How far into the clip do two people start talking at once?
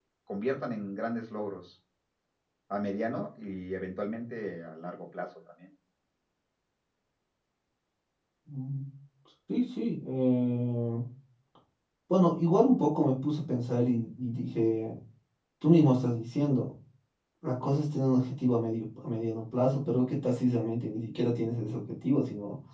none

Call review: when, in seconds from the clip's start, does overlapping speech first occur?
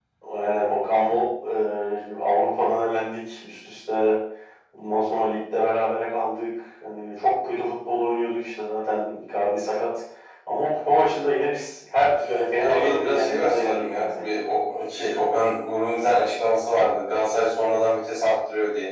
13 s

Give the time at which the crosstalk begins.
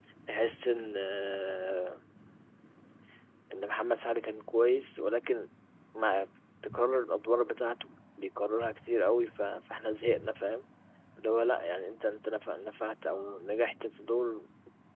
none

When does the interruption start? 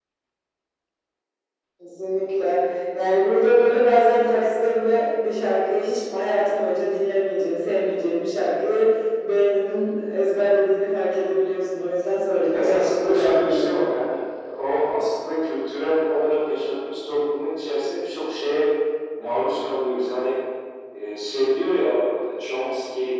13 s

